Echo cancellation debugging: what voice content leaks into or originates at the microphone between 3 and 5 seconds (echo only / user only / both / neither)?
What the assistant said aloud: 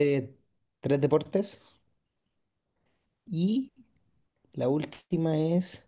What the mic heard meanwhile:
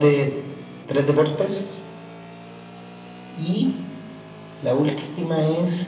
echo only